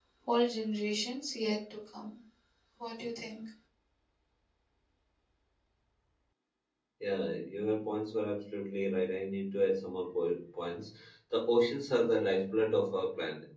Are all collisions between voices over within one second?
Yes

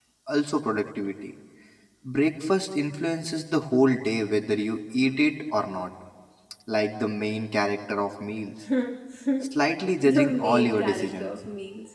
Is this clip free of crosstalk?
No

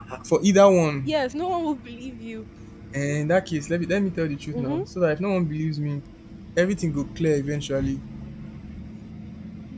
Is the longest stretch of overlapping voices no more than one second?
Yes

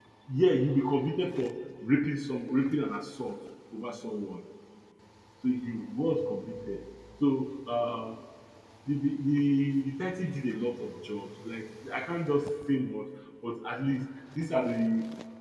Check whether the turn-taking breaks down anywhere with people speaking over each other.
No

